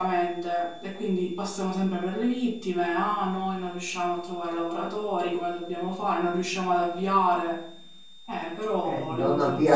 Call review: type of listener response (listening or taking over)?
taking over